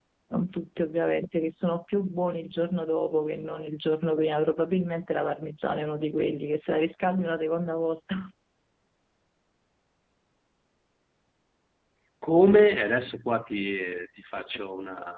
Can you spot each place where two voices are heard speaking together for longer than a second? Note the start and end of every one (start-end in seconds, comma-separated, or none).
none